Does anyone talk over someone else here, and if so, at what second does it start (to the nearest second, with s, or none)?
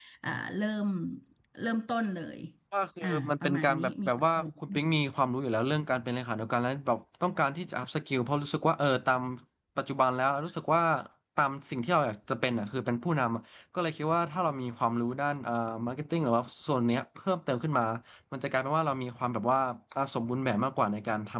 3 s